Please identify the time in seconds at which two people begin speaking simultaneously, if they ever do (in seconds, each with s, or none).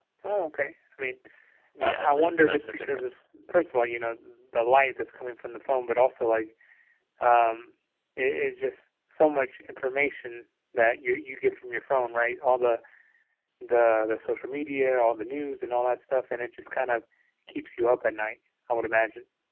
1.8 s